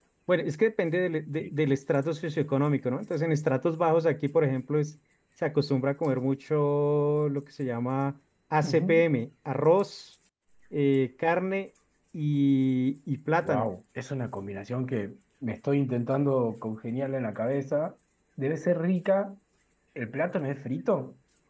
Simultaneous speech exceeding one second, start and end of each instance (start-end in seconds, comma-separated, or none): none